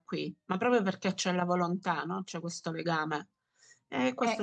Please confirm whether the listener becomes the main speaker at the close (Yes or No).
Yes